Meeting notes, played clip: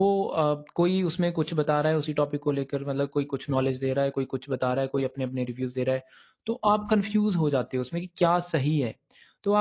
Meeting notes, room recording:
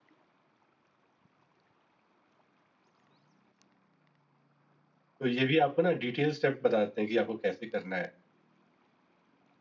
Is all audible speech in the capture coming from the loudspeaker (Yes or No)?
No